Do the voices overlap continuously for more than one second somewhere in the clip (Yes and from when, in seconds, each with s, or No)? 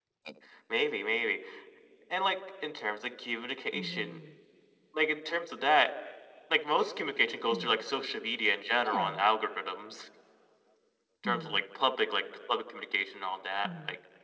No